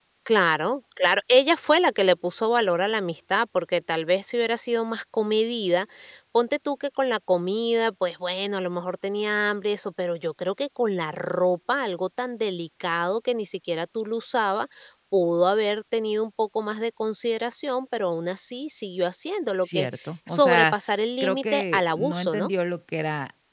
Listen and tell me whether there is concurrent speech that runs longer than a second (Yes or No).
Yes